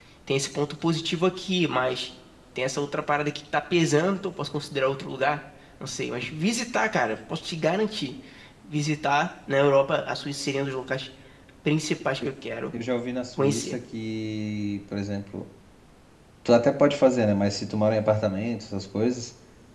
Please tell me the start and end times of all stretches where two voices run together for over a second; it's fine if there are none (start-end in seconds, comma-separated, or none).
none